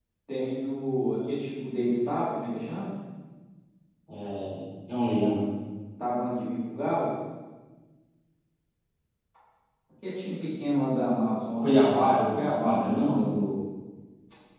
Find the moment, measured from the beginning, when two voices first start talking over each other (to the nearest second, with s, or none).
12 s